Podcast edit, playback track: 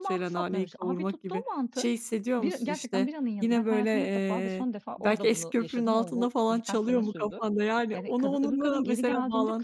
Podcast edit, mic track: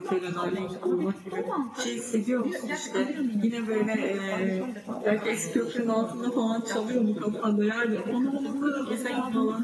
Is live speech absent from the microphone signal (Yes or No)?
Yes